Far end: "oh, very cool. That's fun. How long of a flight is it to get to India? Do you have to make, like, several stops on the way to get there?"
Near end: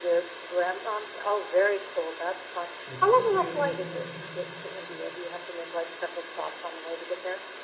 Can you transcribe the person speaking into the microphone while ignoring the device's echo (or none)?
That's still a pretty long flight.